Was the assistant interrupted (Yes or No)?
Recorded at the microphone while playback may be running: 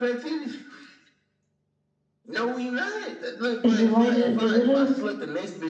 Yes